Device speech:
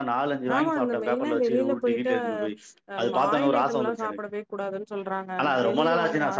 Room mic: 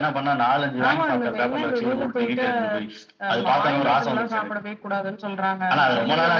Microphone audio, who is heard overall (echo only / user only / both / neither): echo only